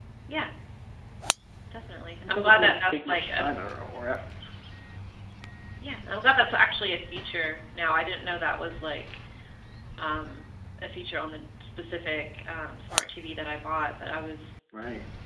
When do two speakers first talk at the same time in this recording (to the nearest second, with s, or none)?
2 s